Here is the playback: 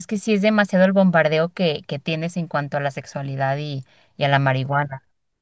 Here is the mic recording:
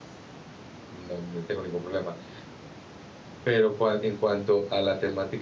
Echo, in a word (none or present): none